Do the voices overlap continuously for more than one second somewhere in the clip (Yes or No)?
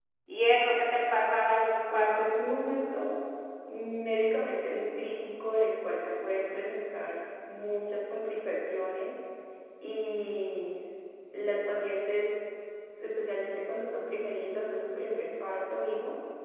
No